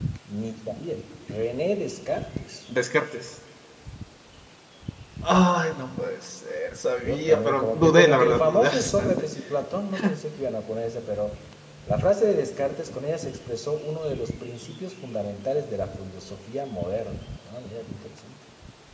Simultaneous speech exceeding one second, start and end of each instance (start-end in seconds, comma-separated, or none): 7.0-9.3